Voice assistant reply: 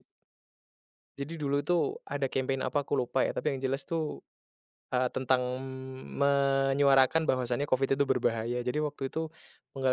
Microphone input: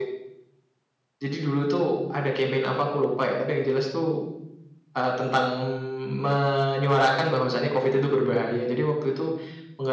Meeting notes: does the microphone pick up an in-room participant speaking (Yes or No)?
No